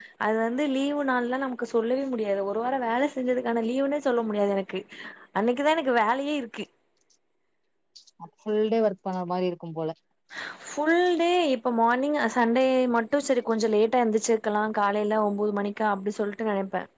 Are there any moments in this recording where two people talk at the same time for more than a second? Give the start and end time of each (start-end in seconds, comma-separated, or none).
none